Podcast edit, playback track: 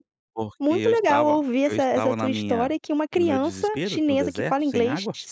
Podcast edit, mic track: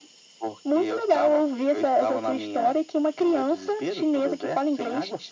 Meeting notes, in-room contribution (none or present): none